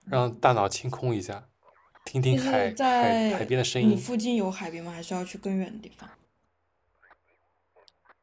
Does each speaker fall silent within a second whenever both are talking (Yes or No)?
No